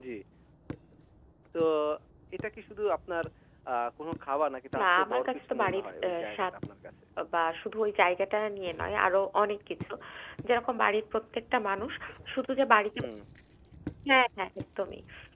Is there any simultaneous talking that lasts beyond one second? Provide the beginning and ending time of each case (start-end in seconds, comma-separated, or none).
4.8-6.5